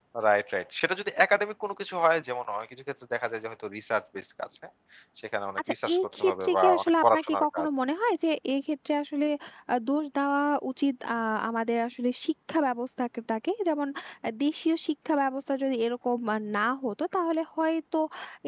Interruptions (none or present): present